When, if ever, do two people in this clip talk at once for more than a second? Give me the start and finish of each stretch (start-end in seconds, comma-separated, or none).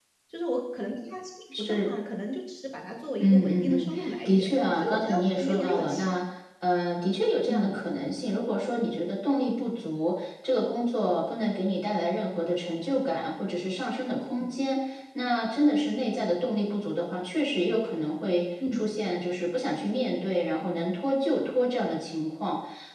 3.2-6.2